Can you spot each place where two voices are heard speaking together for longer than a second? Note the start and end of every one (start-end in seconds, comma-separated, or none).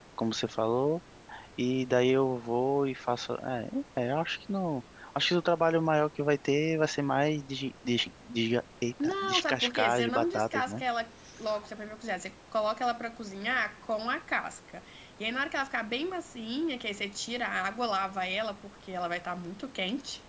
9.0-10.8